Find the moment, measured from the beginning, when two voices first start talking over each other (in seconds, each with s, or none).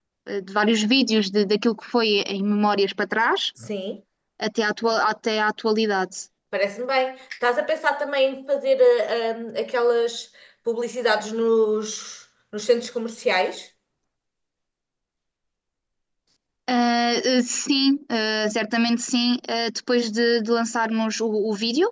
none